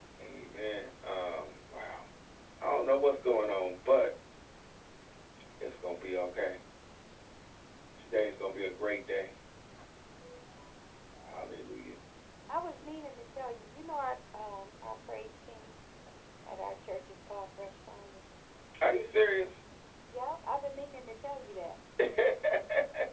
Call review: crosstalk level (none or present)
none